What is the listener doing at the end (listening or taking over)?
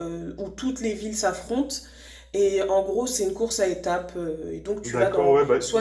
taking over